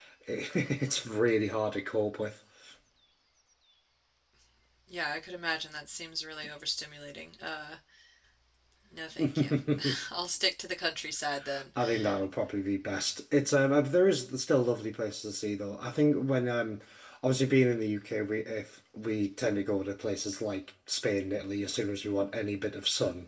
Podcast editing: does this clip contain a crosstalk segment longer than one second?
No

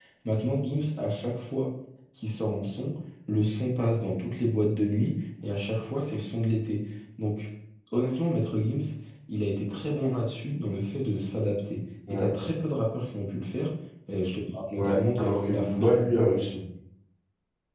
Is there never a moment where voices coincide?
No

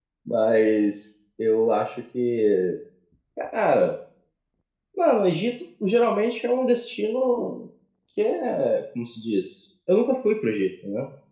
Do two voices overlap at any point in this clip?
No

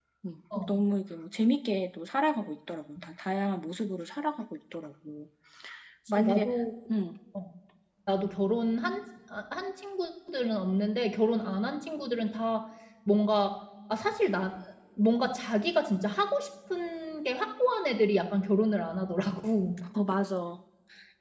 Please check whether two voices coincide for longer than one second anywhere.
No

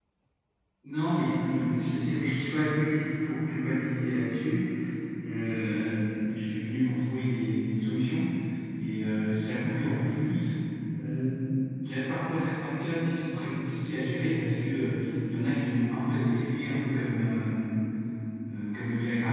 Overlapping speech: No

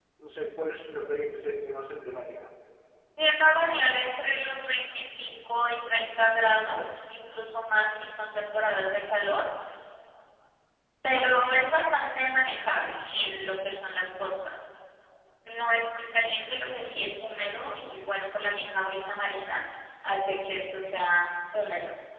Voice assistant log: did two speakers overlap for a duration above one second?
No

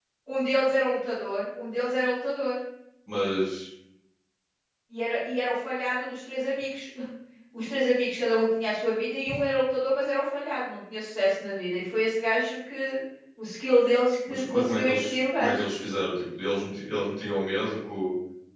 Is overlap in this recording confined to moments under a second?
No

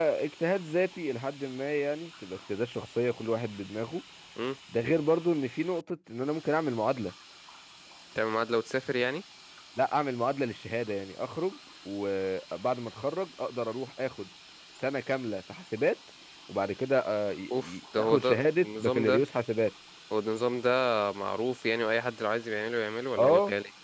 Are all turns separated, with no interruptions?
No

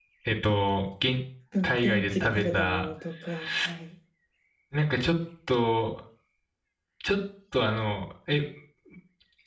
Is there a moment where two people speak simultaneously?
Yes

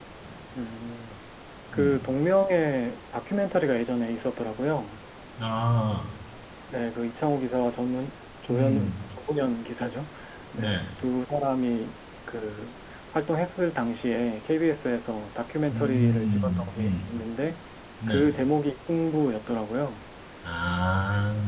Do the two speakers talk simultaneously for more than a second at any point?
Yes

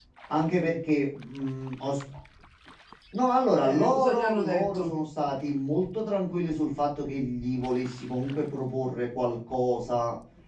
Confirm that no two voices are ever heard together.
No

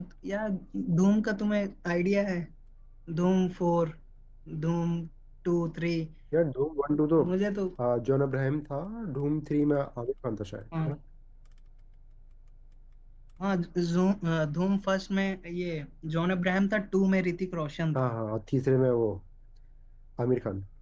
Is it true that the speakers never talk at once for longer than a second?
Yes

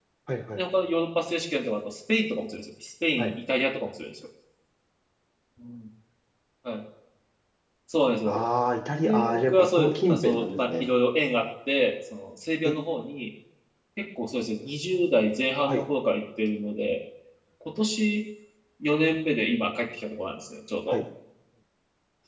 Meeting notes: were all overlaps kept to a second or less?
No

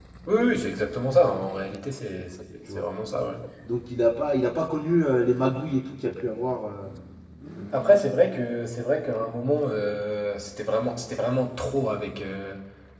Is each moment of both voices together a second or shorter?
Yes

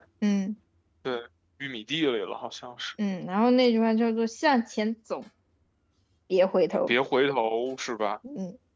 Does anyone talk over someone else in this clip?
No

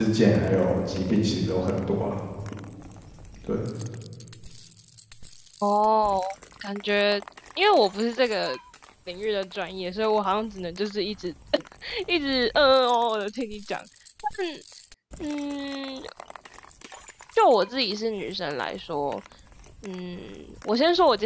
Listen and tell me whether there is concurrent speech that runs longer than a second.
No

